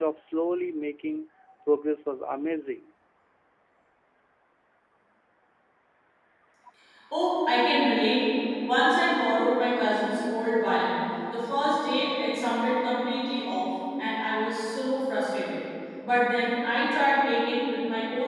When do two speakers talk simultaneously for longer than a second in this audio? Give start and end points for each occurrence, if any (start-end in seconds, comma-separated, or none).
none